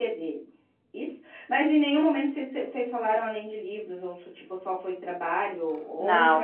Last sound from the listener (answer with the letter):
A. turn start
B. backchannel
A